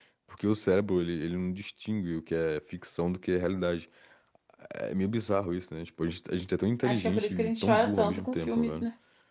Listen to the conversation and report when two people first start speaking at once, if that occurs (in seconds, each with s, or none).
6.8 s